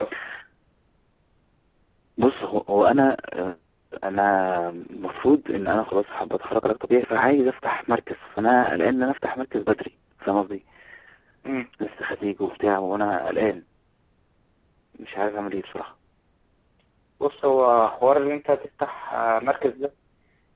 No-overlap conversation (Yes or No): Yes